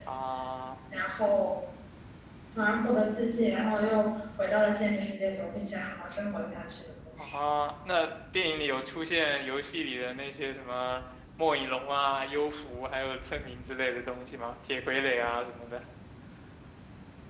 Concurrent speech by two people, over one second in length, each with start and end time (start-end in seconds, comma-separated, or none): none